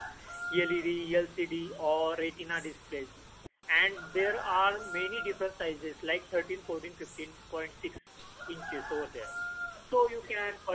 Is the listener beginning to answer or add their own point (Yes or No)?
No